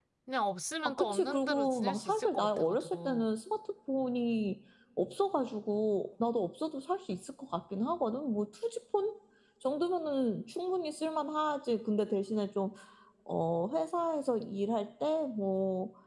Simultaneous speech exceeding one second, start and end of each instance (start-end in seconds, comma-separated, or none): 0.8-3.2